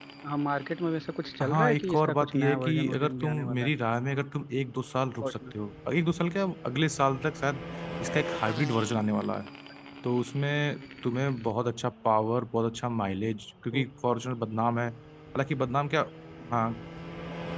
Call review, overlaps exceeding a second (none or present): present